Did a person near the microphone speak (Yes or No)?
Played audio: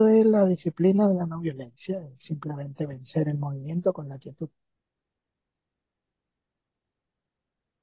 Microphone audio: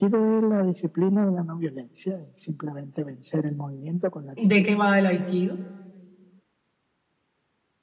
Yes